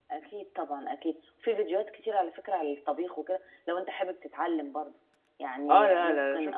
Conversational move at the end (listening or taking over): taking over